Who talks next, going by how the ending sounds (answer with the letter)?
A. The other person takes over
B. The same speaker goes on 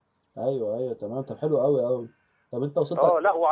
A